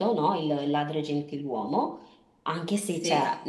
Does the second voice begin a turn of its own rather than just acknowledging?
No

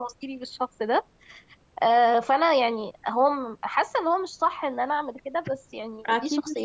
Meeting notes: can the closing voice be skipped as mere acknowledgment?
No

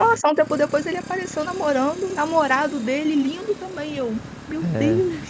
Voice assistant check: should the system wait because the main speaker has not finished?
No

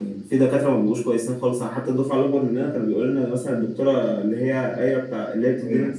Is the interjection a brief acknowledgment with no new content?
Yes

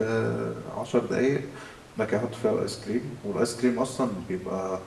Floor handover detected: No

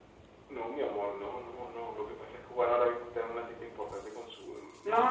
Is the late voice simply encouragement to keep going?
No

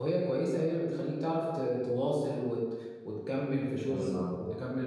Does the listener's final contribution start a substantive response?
No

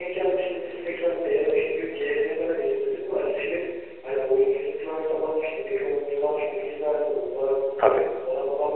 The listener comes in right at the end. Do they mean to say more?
No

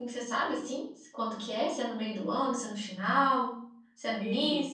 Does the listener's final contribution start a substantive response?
Yes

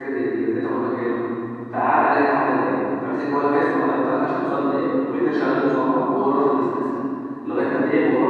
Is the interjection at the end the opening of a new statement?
No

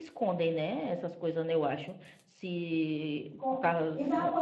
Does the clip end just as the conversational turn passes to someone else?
Yes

